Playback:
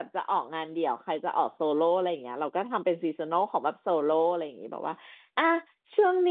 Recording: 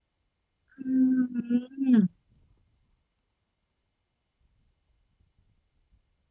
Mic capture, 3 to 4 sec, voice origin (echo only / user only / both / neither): neither